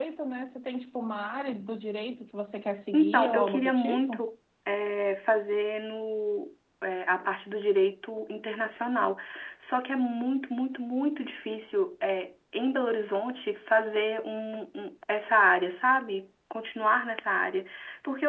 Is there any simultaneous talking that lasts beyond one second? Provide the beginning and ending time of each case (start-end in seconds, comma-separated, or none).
2.9-4.2